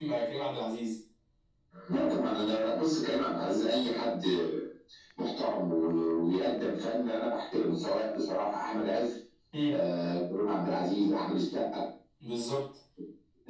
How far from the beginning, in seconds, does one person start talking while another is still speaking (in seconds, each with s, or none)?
none